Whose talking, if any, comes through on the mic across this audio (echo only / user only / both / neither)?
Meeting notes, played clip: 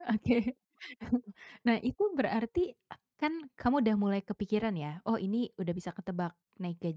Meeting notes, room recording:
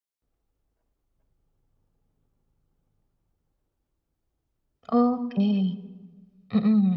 user only